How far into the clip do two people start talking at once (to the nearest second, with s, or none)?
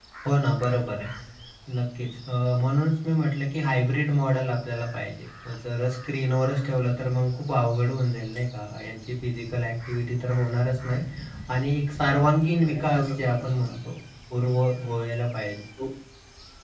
13 s